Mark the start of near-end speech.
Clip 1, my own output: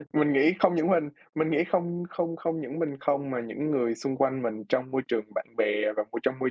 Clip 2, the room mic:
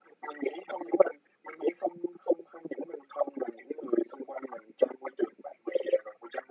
none

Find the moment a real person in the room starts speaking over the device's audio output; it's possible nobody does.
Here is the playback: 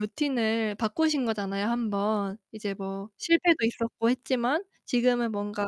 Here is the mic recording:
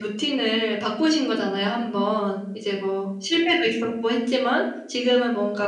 none

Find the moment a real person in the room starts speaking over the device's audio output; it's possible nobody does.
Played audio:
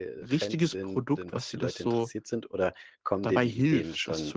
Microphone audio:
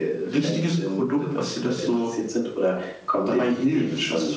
none

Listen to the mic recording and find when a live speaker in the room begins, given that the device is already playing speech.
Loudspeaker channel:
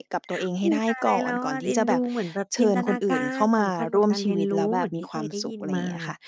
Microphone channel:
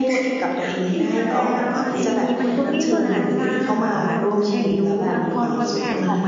1.6 s

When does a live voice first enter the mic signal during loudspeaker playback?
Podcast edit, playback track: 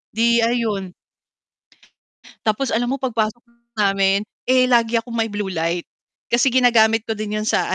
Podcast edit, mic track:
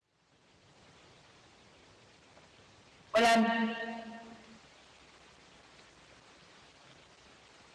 3.1 s

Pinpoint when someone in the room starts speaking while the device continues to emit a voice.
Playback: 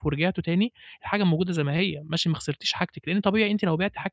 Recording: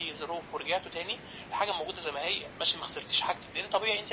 none

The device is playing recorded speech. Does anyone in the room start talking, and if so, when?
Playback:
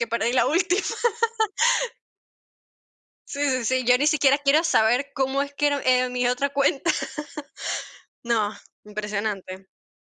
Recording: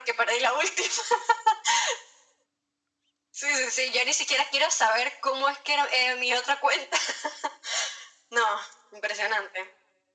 none

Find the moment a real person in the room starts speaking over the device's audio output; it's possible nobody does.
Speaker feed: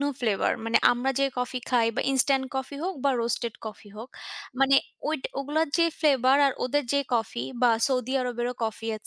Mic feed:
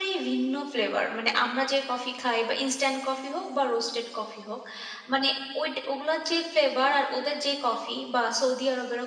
none

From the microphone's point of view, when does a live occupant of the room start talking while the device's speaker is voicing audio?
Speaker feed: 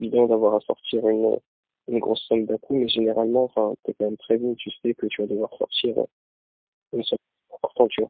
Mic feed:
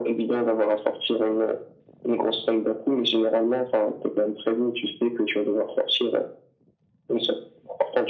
none

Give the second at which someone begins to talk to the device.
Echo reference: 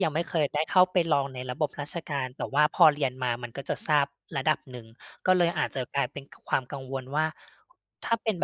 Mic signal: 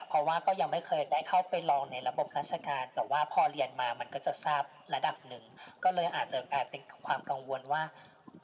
none

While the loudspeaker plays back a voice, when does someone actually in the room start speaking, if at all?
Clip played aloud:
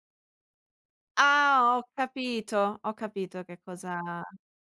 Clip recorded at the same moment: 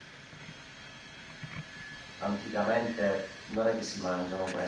2.1 s

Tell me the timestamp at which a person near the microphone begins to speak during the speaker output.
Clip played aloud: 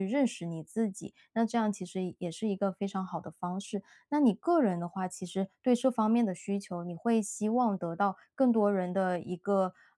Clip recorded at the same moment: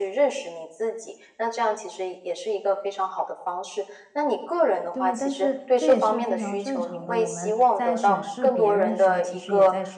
4.9 s

